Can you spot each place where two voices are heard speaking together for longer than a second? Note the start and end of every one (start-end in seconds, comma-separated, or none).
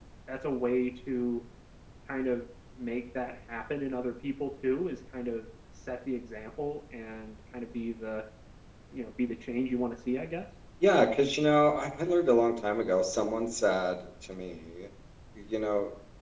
none